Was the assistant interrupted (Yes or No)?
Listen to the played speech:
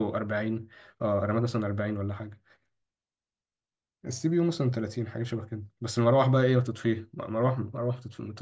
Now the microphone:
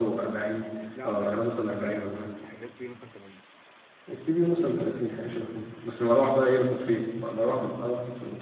Yes